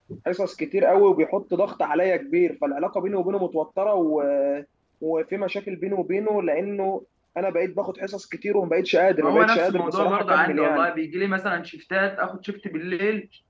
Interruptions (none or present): present